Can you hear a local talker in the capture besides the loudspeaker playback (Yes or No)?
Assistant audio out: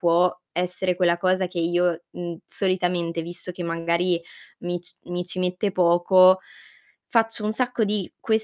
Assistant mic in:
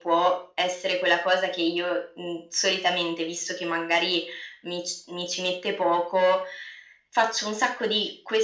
No